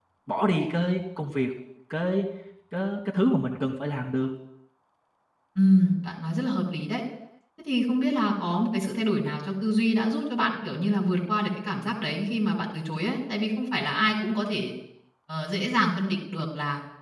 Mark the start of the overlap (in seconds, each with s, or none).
none